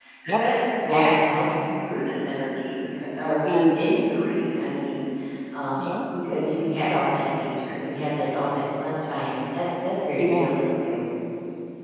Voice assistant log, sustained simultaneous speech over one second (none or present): none